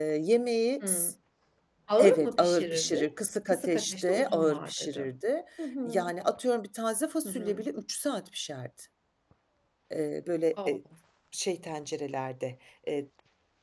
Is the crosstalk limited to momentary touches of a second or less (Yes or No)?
No